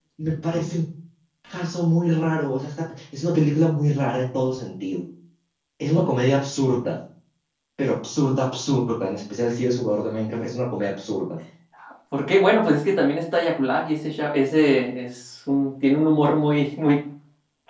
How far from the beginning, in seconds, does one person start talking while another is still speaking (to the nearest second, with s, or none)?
none